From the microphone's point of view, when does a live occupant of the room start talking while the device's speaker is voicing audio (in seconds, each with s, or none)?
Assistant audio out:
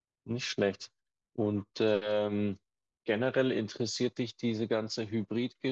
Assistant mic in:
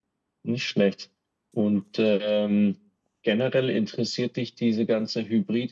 none